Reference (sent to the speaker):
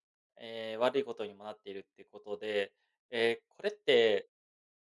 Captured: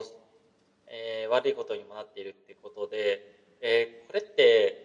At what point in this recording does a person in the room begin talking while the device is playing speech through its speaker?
none

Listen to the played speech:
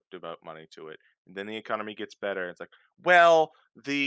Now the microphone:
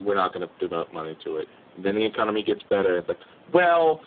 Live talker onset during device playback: none

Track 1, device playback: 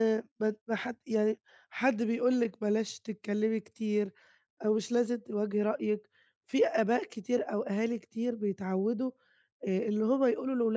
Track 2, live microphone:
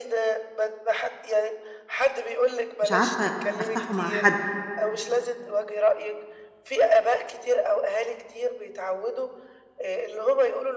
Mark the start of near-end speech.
2.8 s

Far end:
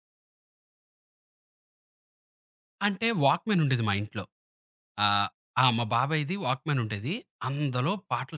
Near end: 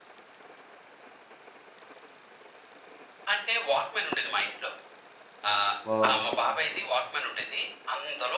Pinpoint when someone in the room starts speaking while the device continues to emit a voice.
5.8 s

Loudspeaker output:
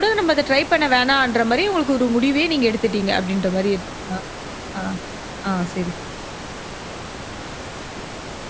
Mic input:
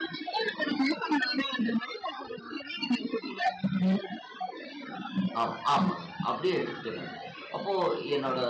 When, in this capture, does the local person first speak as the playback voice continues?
5.4 s

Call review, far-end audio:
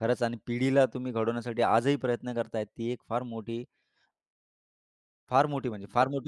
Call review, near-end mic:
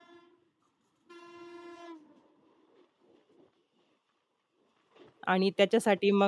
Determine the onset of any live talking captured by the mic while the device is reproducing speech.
5.3 s

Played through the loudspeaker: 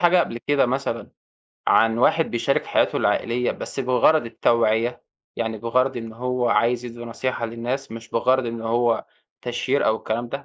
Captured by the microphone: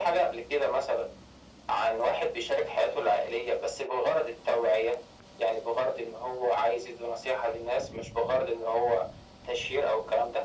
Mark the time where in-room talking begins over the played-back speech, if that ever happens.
none

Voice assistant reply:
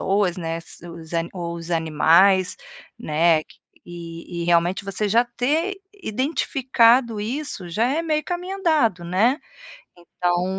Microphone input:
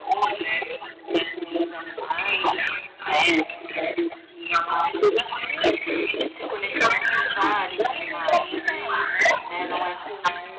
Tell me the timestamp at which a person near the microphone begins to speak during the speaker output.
6.3 s

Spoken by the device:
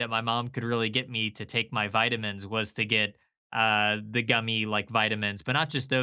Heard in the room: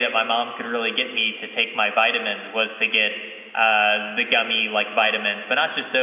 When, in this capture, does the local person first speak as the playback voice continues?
none

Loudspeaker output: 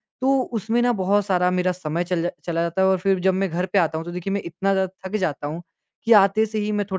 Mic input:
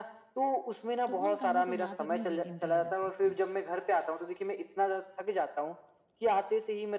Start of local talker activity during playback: 1.1 s

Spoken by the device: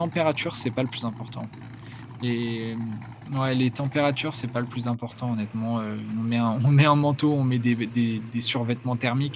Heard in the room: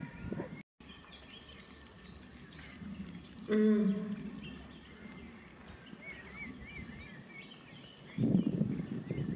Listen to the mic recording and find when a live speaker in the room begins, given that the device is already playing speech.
3.5 s

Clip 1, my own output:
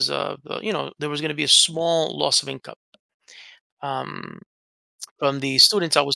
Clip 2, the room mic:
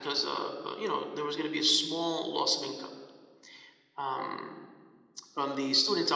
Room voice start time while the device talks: none

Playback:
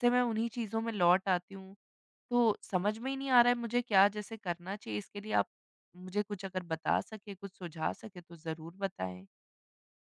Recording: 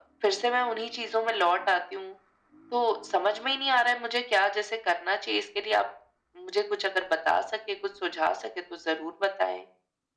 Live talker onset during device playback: none

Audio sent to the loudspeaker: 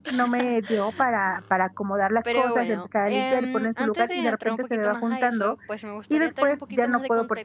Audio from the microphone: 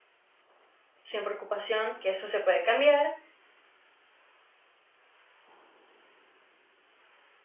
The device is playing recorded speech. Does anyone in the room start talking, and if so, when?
1.0 s

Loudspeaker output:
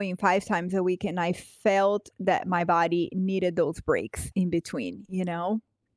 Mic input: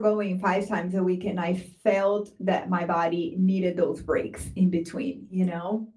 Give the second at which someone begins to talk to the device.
none

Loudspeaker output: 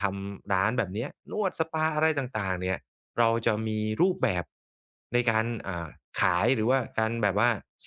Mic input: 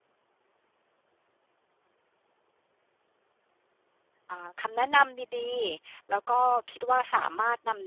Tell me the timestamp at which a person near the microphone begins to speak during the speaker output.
4.3 s

